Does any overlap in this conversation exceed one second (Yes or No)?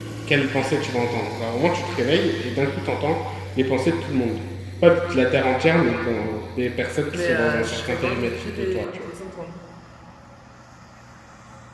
Yes